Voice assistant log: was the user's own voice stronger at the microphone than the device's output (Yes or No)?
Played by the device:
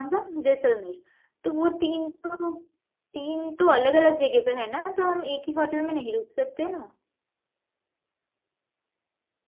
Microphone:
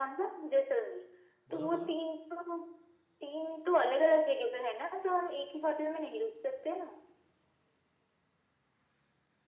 No